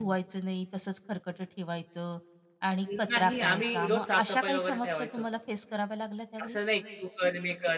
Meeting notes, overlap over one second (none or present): present